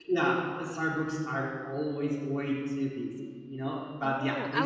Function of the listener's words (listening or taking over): taking over